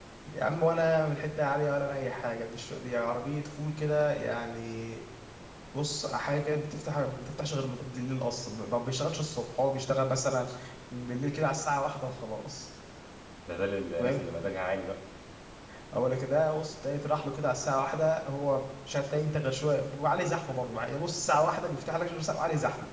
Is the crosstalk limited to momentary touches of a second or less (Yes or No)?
Yes